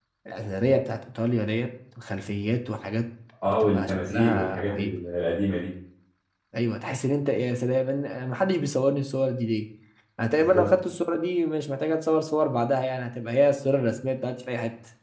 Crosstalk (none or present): present